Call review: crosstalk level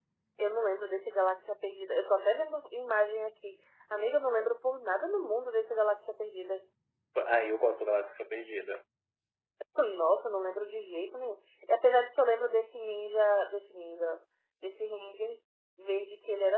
none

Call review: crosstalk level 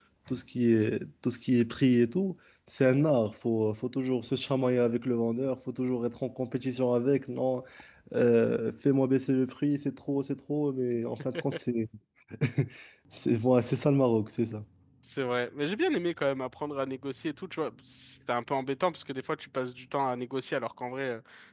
none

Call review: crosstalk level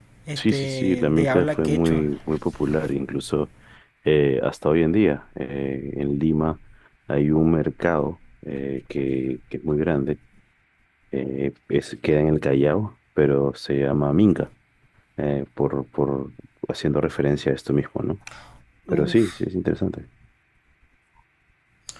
present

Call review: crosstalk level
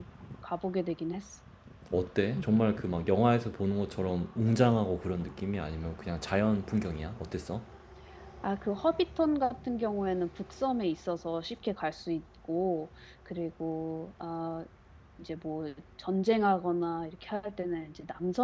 none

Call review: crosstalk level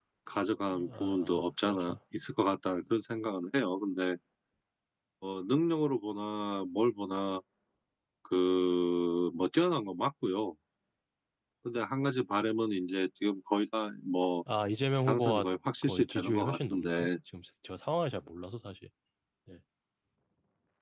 present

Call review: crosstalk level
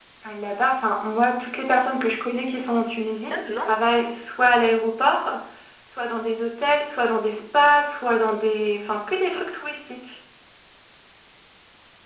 present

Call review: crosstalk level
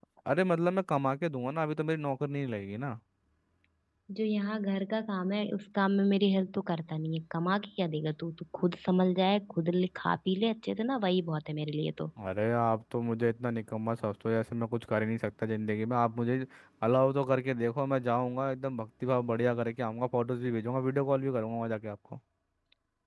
none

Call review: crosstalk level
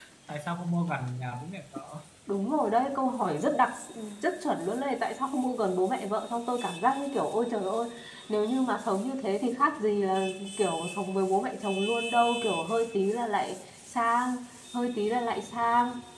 none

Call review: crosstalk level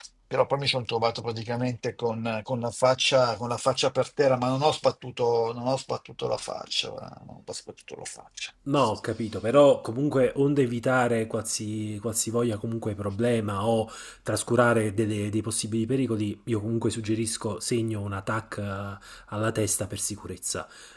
none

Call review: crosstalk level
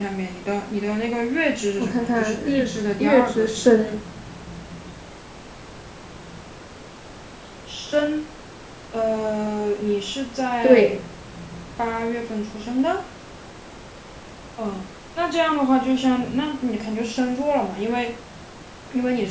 present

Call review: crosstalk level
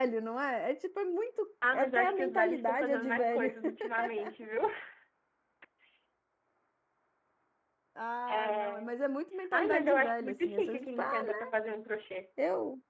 present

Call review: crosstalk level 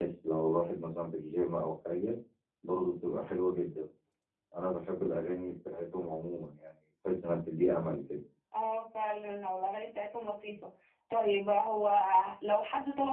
none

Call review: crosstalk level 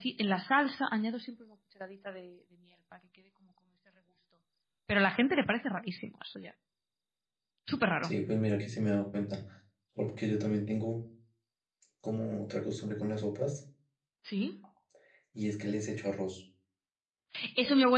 none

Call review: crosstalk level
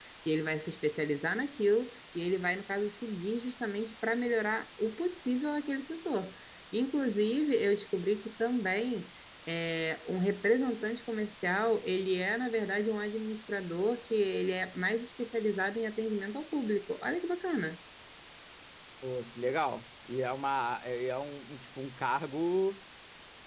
none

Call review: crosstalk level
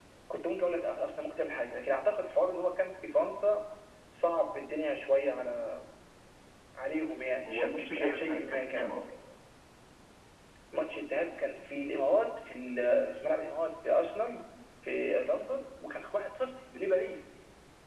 present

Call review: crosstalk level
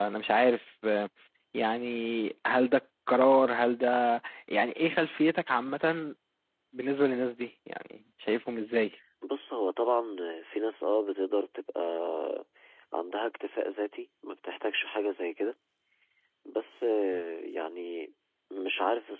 none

